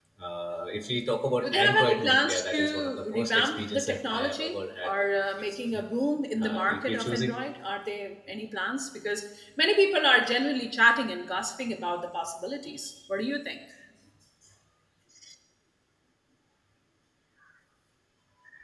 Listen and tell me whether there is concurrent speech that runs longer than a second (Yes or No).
Yes